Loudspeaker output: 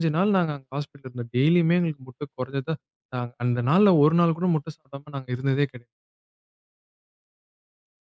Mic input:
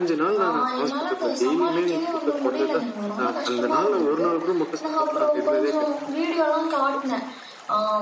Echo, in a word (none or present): present